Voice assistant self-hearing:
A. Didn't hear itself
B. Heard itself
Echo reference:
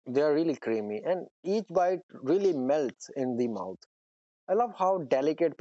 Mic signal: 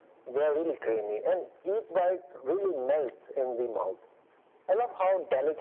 B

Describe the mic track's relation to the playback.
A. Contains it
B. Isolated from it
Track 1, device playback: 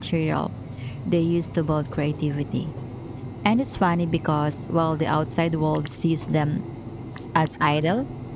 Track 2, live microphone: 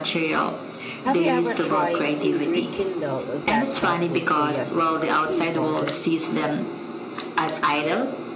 A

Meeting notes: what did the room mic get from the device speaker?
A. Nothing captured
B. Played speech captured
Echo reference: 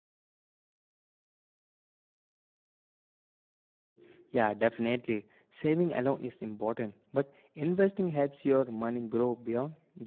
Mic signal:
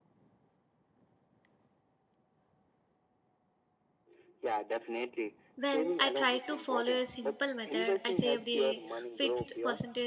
B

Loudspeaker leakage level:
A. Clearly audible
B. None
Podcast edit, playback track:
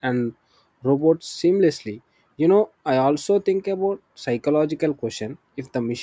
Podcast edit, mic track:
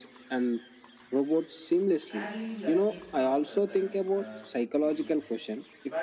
A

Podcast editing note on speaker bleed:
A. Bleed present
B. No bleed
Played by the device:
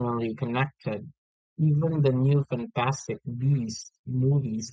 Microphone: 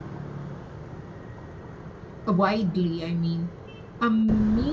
B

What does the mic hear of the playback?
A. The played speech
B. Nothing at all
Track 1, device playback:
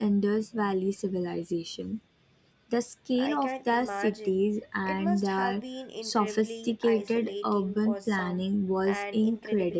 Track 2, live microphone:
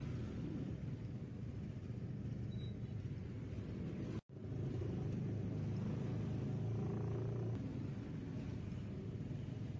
B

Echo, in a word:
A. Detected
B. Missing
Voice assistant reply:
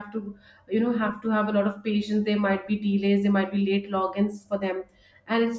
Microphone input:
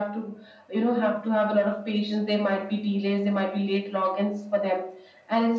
A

